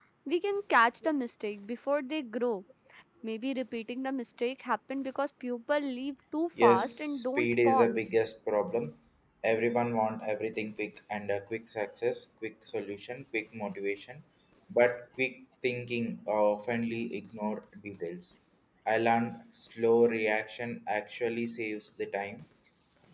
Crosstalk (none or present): present